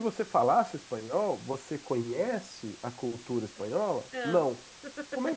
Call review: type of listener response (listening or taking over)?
listening